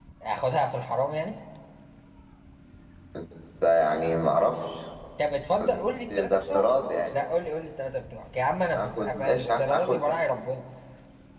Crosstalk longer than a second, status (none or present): present